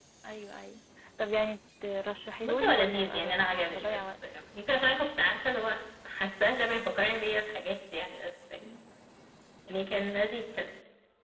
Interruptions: present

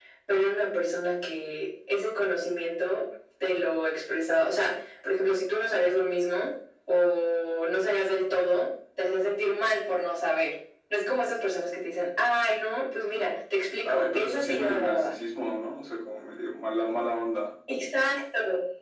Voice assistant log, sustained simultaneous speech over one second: present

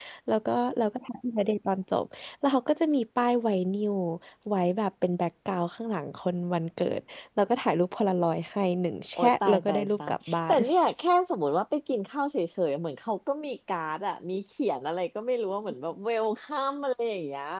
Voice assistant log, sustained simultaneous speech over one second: present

